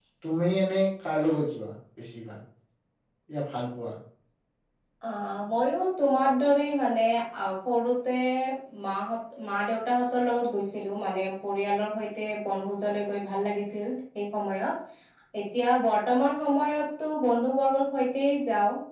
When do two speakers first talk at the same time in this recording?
none

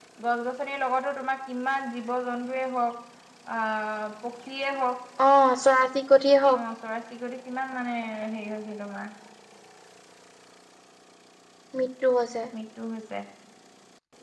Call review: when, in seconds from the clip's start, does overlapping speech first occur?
none

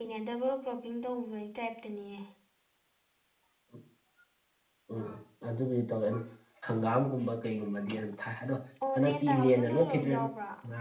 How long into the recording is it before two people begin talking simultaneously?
8.9 s

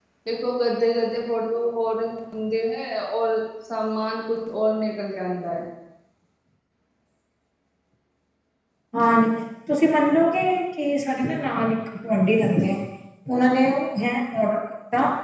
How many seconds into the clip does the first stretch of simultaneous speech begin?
none

